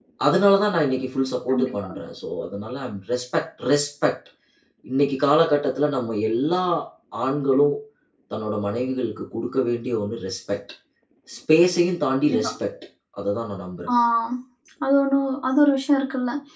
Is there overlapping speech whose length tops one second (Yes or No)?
No